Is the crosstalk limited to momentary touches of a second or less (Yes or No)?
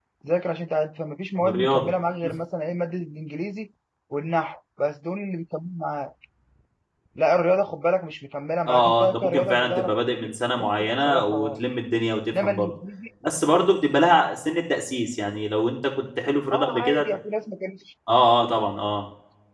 No